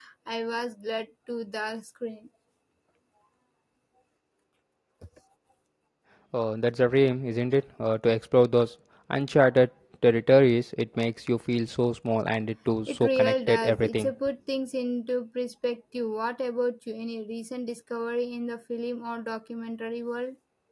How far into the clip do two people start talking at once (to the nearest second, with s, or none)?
13 s